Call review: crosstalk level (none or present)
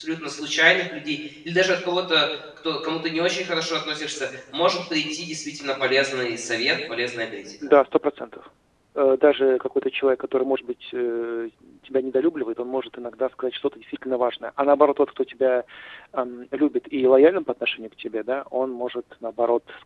none